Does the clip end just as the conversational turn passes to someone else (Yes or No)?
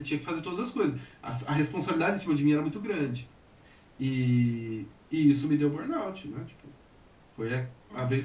No